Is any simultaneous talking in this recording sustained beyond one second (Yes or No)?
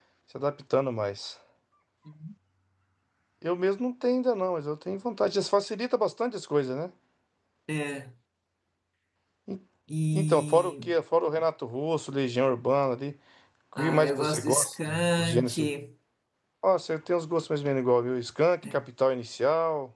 Yes